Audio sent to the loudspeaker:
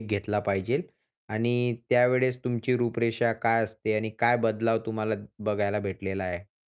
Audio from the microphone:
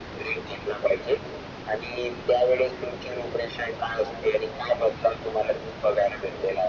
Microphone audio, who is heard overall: echo only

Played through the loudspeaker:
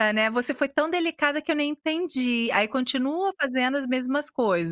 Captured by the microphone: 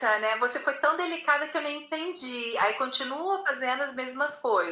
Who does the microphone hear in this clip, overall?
echo only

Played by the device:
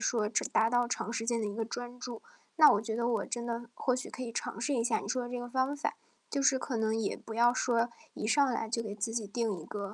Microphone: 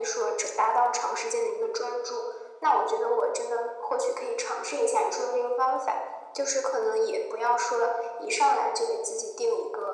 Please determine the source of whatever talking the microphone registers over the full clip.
echo only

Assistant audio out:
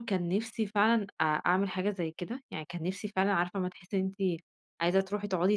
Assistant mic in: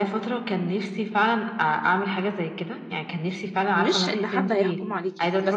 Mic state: both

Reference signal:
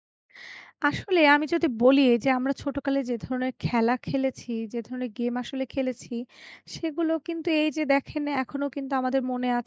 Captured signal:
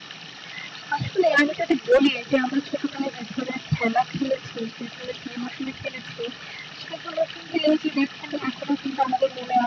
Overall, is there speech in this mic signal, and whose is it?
echo only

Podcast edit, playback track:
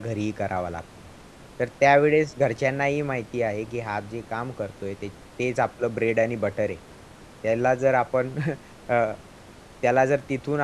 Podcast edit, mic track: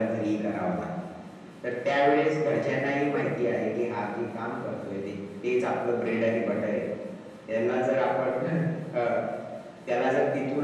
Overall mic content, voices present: both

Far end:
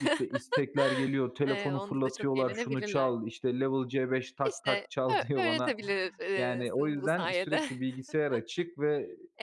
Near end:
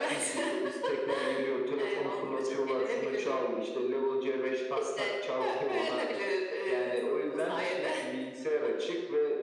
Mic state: echo only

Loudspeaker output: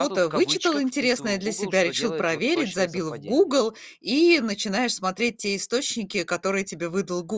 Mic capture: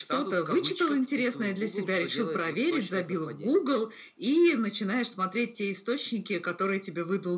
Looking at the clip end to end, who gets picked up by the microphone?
echo only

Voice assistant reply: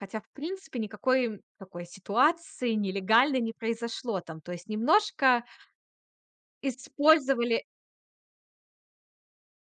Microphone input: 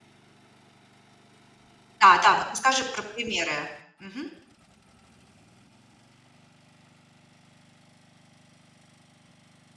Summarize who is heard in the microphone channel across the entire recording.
user only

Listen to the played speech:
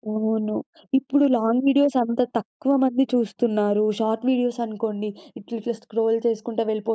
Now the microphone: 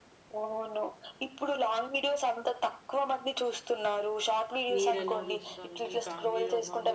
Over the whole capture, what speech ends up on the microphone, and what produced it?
both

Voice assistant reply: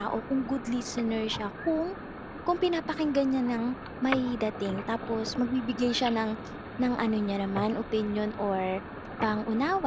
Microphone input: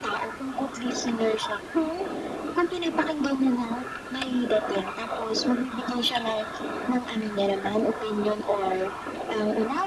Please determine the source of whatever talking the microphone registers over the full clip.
echo only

